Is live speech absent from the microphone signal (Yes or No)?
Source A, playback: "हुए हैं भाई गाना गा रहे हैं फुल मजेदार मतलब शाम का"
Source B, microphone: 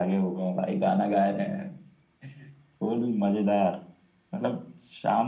Yes